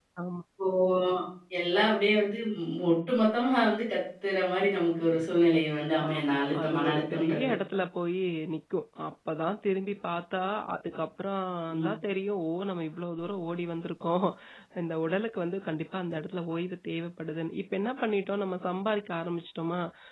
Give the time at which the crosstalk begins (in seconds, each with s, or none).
6.0 s